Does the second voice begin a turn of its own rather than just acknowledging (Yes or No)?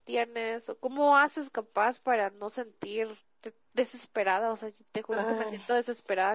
No